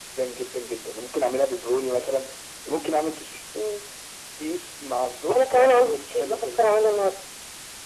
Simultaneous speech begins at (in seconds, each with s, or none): 5.3 s